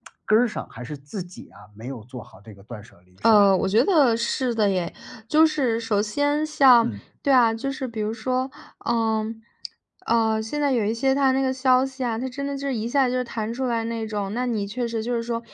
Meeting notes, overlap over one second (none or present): none